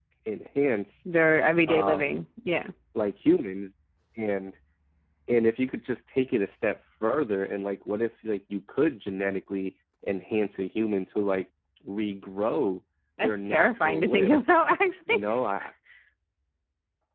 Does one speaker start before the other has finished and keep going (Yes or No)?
Yes